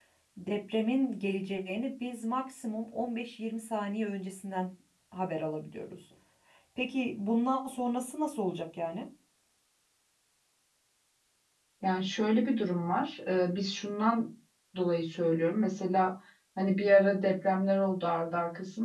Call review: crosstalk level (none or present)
none